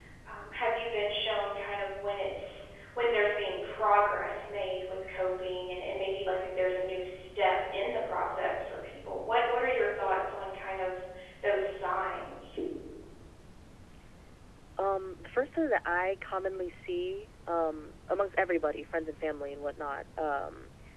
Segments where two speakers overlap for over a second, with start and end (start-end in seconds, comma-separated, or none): none